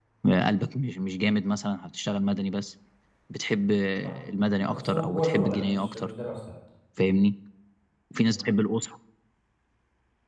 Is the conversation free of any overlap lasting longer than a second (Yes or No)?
No